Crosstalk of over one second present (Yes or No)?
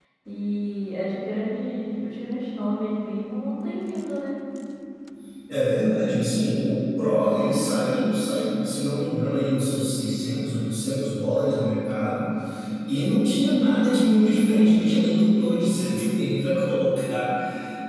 No